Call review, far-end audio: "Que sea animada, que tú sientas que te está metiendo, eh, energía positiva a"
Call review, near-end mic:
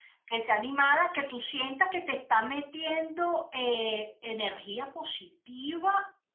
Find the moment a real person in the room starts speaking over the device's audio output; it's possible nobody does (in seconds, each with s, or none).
none